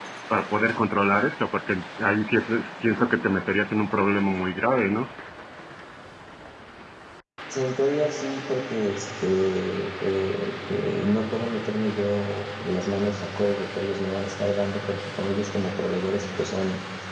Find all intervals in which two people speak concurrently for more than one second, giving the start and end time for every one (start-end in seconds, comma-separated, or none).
none